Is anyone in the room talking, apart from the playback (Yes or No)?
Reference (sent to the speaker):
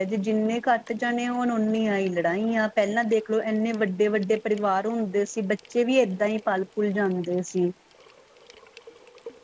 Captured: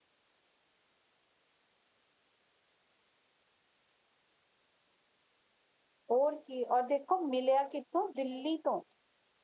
Yes